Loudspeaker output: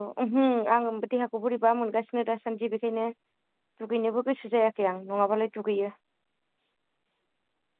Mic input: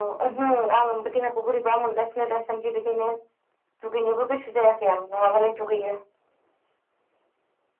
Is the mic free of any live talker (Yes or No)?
Yes